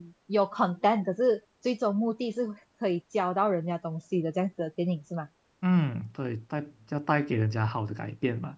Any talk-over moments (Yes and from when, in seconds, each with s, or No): No